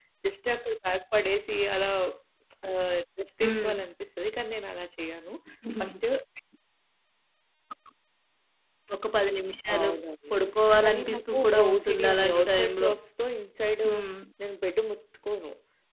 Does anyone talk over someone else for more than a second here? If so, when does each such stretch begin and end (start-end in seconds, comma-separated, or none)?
10.8-12.9